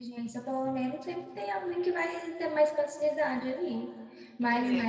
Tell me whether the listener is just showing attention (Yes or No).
Yes